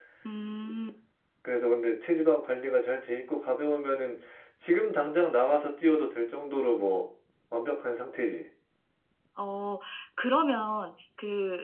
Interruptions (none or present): none